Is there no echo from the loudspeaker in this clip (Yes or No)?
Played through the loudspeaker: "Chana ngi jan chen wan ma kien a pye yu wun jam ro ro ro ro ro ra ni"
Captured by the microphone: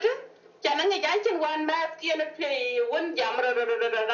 No